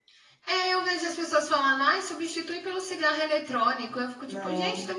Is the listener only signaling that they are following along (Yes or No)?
Yes